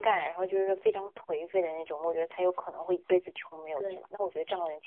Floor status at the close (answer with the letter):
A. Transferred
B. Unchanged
B